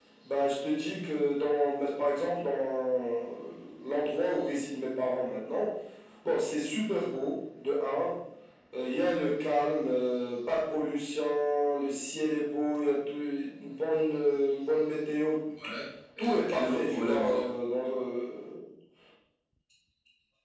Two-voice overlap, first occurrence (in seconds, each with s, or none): 16.2 s